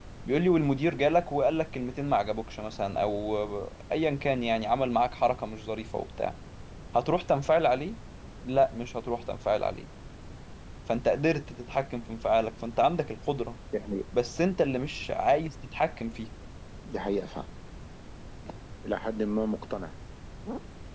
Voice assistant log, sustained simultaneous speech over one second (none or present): none